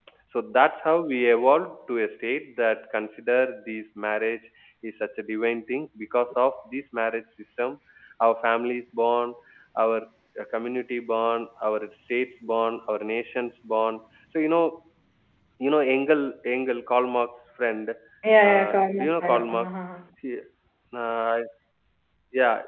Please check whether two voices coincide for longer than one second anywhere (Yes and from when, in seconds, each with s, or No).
Yes, from 18.4 s